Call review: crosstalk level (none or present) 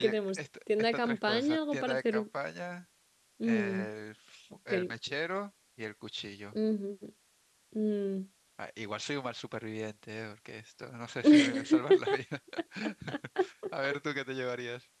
present